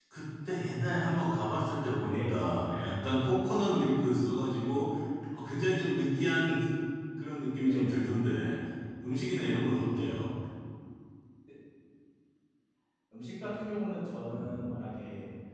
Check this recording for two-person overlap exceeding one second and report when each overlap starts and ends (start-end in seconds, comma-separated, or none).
none